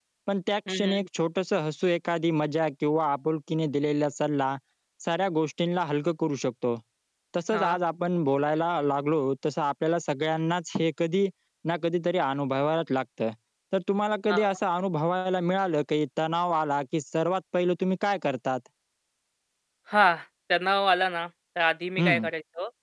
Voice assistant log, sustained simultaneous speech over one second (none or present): none